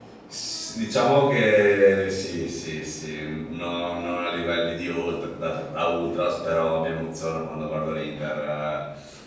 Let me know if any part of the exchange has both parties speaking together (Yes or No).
No